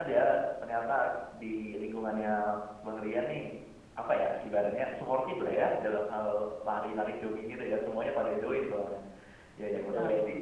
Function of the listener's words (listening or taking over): listening